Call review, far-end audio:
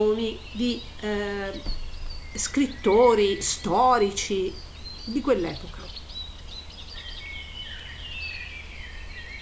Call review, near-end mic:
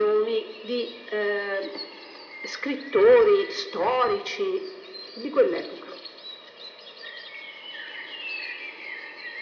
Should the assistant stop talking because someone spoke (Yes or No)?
No